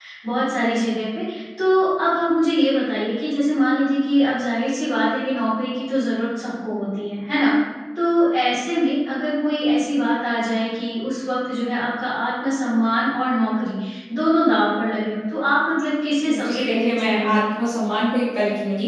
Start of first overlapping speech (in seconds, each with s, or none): 16.2 s